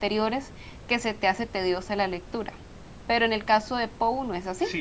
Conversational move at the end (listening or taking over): taking over